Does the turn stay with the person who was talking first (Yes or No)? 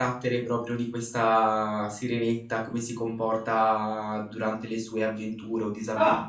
Yes